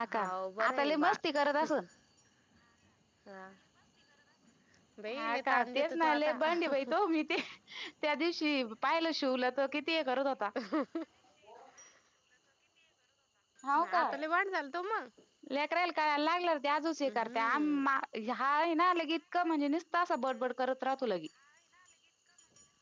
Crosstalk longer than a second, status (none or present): present